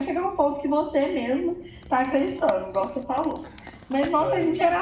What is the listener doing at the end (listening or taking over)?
listening